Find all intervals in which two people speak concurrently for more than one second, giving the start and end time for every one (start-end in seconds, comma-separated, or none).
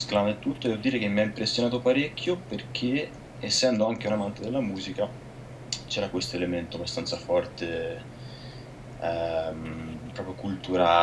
none